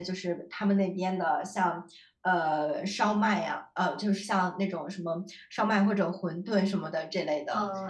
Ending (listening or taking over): taking over